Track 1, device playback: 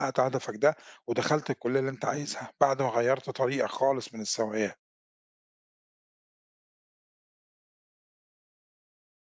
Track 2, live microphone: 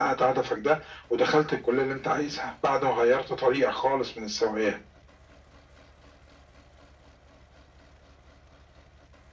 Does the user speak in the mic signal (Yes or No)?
No